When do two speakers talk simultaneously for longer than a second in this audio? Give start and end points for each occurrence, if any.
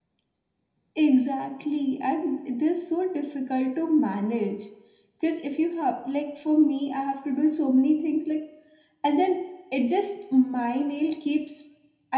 none

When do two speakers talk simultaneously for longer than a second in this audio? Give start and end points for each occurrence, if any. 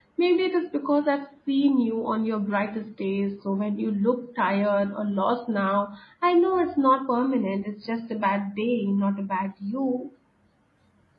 none

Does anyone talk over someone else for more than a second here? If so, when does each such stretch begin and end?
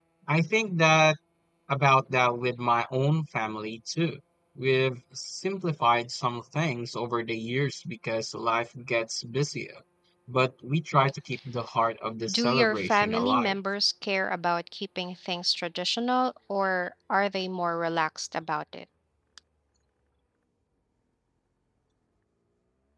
12.3-13.5

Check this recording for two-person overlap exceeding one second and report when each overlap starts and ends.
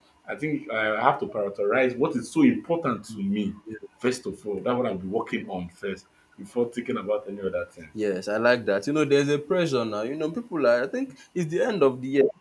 none

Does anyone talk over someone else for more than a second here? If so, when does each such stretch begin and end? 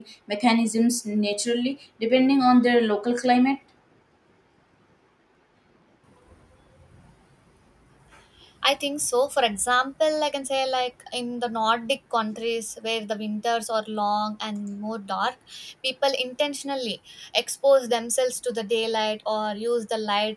none

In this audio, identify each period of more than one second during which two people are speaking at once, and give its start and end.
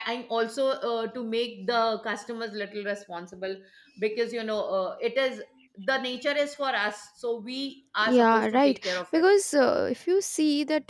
8.0-9.2

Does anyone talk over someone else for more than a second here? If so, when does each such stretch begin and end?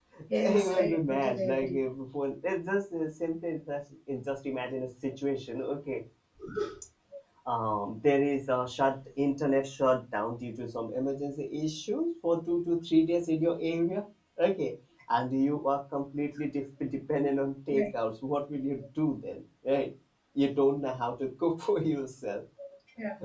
0.5-1.8

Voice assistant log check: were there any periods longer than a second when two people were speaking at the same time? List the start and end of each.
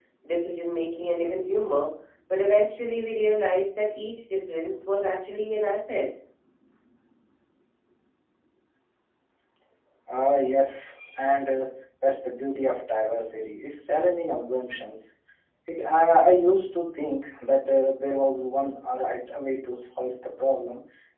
none

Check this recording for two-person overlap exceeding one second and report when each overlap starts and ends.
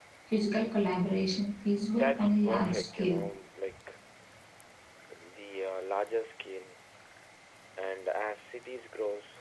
1.9-3.2

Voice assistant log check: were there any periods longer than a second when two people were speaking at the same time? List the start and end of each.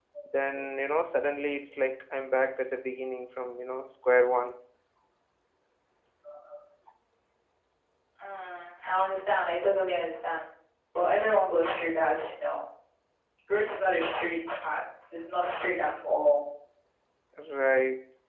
none

